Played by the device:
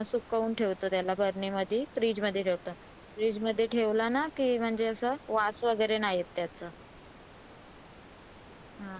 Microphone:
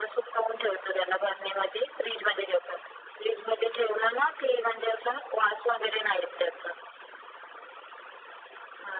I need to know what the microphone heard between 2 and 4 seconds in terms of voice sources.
echo only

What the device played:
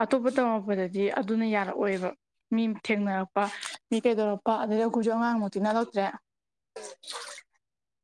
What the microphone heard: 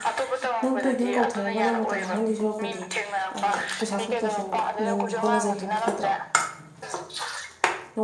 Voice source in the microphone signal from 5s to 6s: both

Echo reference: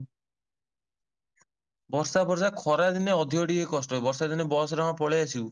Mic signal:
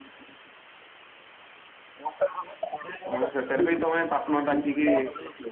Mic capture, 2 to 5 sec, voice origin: both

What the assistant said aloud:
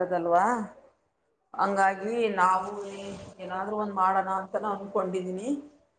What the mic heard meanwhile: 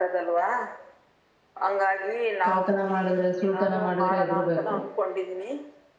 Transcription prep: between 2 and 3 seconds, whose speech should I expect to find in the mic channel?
both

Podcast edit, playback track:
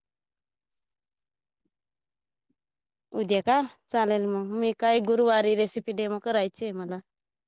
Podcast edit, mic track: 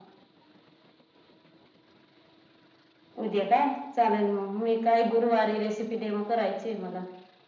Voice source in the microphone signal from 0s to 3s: neither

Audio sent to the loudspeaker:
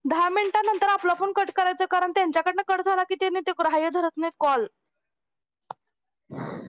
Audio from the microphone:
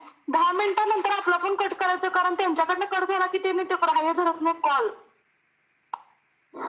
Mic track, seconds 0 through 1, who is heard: echo only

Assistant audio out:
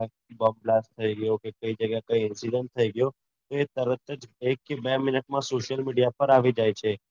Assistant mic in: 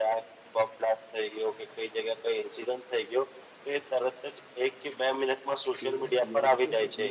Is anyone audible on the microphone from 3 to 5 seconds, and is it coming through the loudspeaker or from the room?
echo only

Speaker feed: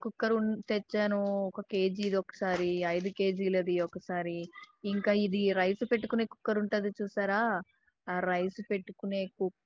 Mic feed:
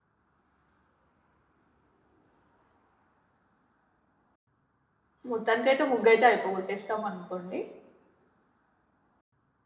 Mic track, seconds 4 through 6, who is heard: user only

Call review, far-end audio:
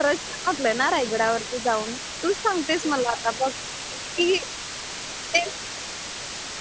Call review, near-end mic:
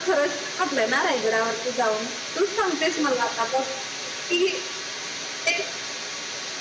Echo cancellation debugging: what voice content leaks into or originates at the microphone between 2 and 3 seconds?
echo only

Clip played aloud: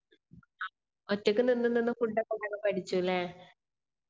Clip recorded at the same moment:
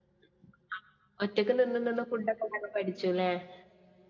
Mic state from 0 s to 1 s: neither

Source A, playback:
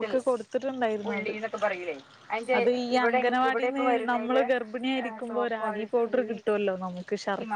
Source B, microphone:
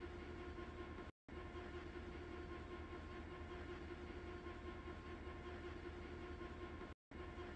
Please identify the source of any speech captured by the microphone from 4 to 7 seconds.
neither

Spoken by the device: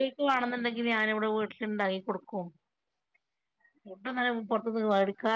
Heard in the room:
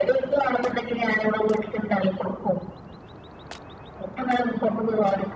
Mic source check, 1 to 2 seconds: echo only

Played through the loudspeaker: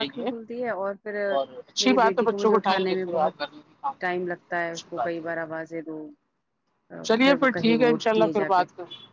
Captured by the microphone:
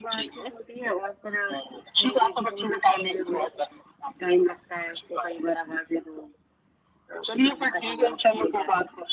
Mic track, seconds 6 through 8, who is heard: echo only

